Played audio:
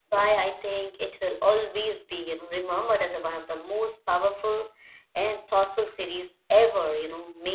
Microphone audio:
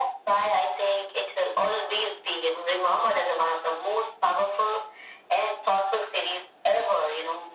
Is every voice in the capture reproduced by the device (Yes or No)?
Yes